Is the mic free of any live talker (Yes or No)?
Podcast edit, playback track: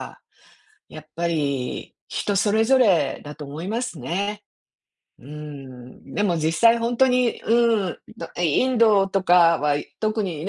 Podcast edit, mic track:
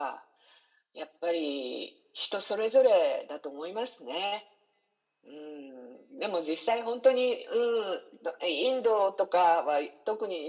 Yes